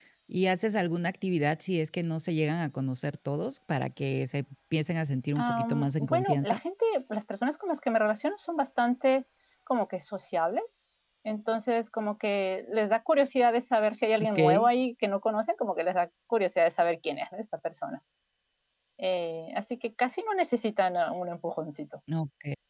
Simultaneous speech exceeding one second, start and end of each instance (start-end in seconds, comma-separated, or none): 5.4-6.6